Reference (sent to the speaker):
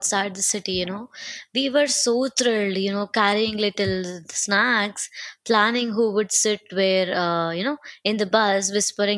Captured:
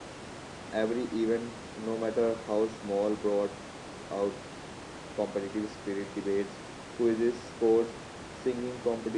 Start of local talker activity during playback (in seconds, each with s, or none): 0.7 s